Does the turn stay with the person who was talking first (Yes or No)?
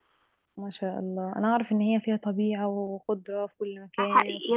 No